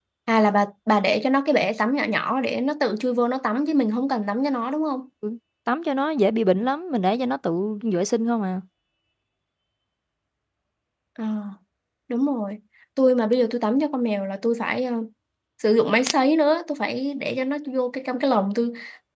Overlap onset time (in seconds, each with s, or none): none